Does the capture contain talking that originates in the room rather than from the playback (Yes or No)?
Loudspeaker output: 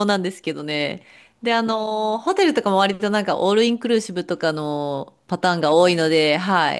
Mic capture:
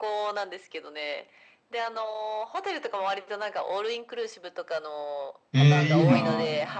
Yes